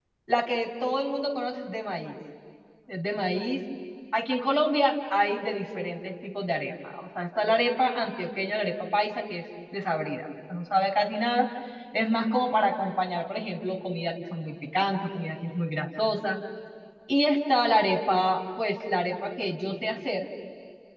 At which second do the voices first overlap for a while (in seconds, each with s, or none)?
none